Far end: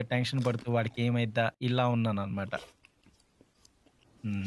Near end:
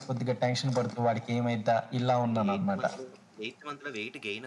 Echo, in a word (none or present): present